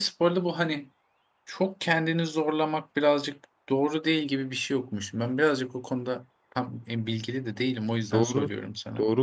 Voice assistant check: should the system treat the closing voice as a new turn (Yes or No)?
Yes